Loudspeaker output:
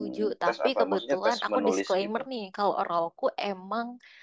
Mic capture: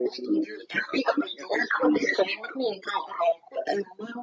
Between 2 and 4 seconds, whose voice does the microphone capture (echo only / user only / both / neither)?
echo only